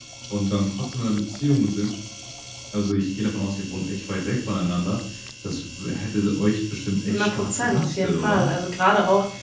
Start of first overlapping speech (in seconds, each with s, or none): 7.1 s